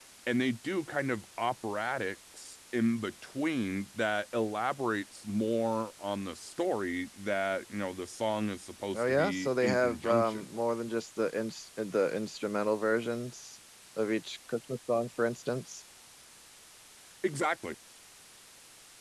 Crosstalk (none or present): present